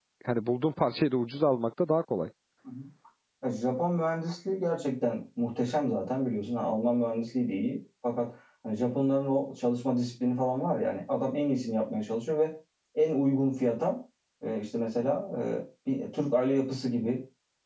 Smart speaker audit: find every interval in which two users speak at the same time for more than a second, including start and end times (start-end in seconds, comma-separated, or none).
none